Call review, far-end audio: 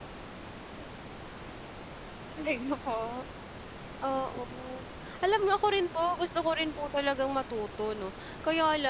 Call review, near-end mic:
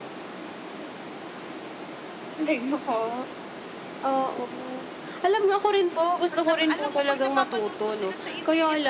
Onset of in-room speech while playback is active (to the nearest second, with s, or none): 6 s